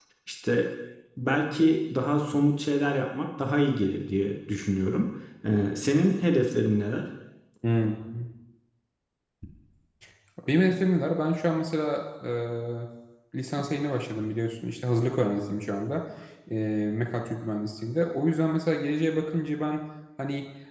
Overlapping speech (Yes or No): No